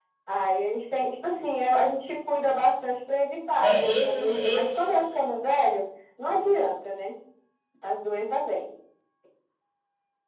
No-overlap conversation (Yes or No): No